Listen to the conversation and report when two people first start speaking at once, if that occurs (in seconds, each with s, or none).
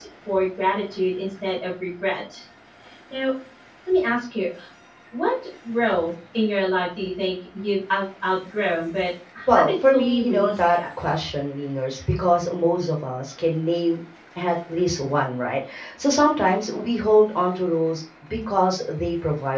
9.5 s